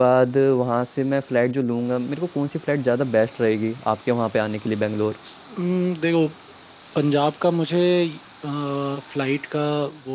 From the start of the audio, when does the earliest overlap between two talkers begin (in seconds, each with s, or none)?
none